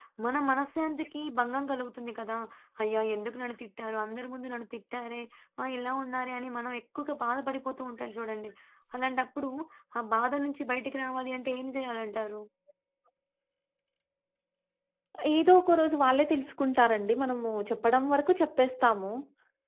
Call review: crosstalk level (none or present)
none